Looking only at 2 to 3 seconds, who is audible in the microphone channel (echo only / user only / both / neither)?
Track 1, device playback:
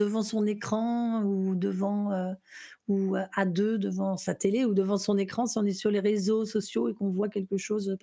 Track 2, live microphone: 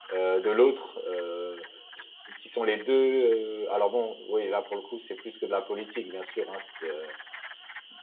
user only